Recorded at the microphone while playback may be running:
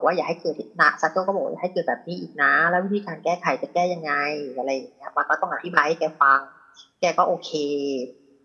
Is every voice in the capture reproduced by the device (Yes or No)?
Yes